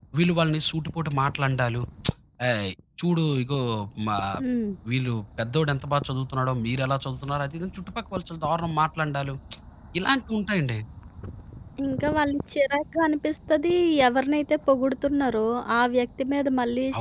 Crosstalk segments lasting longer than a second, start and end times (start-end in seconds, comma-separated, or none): none